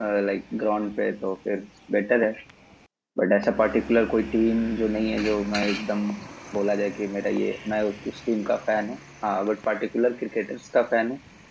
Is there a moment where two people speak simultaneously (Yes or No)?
No